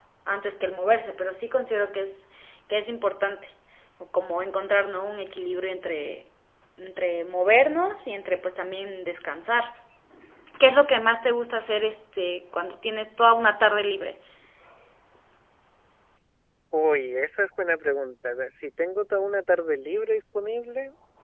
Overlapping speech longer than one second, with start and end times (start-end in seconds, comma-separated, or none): none